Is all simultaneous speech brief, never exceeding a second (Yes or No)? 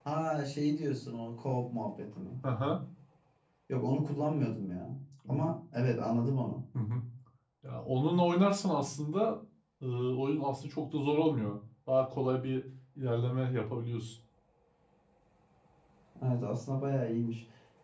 Yes